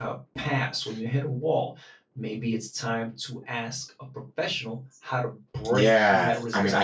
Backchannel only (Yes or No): No